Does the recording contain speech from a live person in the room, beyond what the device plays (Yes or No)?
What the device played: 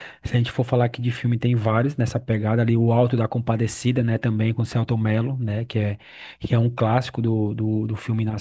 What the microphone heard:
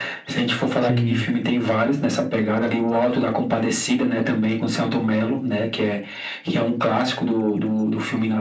Yes